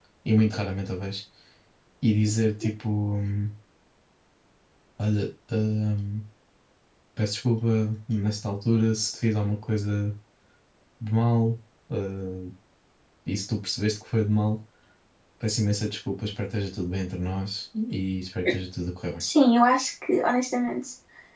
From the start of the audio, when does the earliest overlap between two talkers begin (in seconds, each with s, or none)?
none